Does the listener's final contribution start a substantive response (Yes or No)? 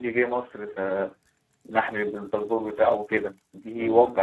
Yes